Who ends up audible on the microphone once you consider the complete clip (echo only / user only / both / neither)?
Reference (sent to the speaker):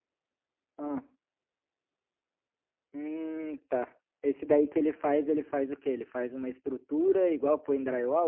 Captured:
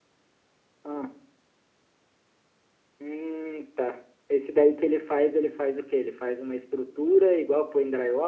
echo only